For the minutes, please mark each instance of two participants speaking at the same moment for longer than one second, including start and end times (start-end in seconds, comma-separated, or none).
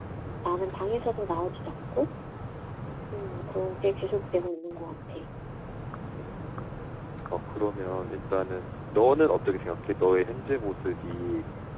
none